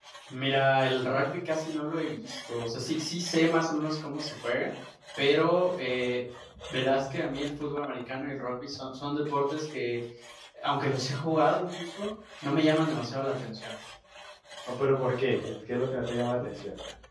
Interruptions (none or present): none